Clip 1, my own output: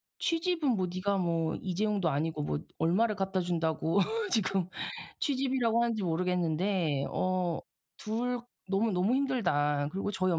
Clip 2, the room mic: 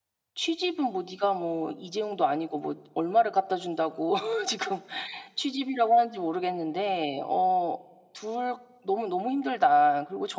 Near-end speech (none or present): none